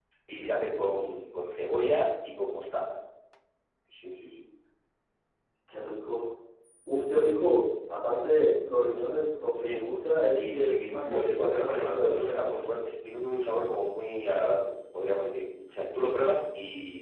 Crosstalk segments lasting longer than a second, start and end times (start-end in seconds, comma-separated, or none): 10.3-12.6